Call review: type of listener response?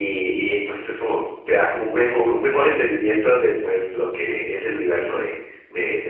taking over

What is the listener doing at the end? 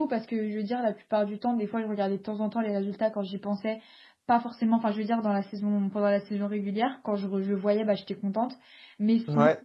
listening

